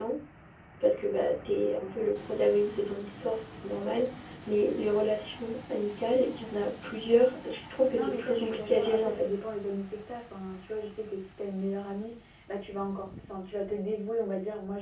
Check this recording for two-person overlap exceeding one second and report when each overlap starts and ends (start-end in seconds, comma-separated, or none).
7.9-9.2